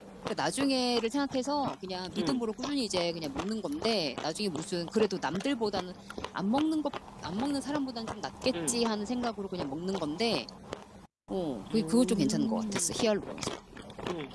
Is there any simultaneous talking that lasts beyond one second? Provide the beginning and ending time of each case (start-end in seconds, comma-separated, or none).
11.7-13.0